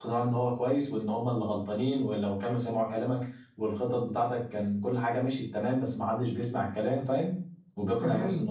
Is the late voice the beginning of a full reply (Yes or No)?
Yes